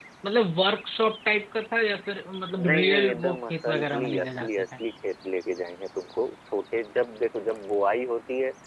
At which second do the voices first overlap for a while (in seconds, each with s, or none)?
2.6 s